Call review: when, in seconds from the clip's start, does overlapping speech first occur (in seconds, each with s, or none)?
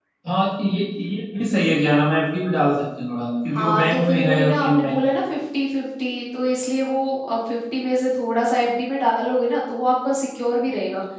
3.5 s